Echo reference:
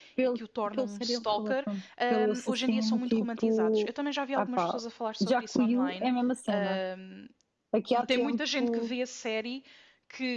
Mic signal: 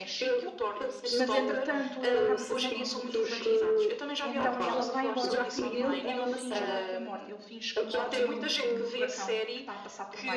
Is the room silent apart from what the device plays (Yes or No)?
No